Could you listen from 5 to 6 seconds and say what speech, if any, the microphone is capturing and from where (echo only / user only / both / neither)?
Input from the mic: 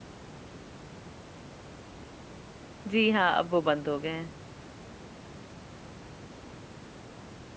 neither